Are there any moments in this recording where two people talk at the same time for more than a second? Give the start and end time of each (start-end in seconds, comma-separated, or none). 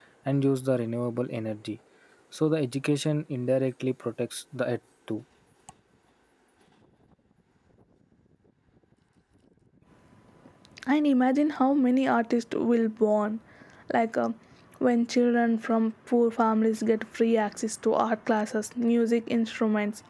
none